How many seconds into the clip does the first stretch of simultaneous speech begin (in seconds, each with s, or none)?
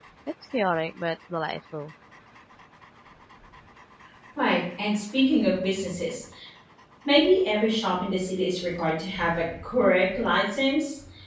none